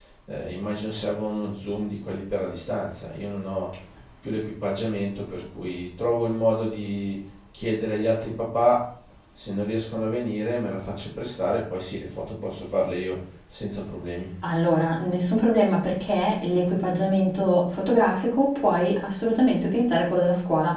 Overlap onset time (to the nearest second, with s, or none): none